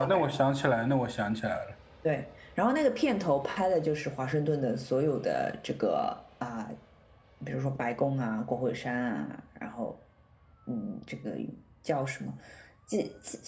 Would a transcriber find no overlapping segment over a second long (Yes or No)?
Yes